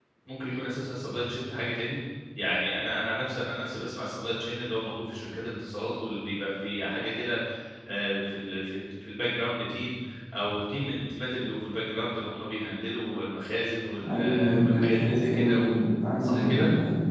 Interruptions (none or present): present